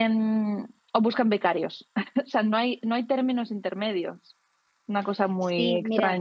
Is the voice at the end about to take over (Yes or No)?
Yes